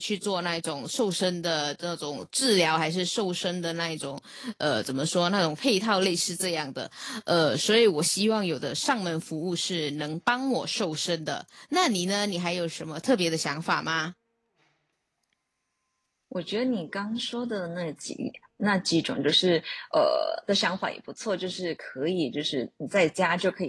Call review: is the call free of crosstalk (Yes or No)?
Yes